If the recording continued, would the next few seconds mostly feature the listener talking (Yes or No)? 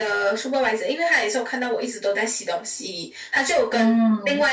No